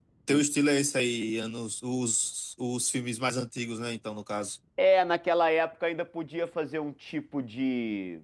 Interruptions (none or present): none